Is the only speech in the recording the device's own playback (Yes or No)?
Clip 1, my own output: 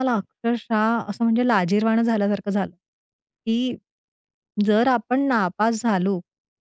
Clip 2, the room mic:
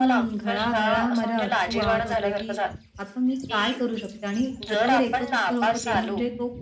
No